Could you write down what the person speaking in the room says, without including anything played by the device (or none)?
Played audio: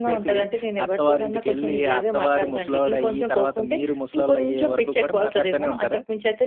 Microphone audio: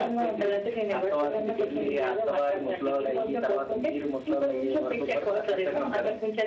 none